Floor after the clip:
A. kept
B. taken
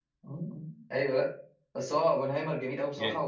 A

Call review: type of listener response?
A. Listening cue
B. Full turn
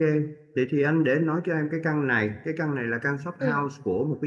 A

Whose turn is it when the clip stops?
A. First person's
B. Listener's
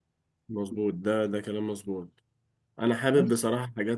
A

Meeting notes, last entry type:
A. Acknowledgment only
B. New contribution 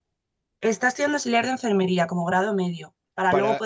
A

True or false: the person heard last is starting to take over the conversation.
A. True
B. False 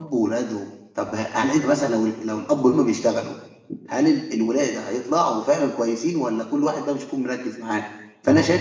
B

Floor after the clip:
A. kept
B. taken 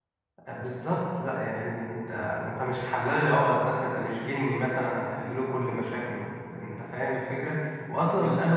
A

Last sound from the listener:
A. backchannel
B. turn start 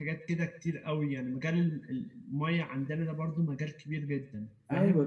B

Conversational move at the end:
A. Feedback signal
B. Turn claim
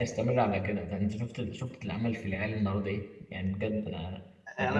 B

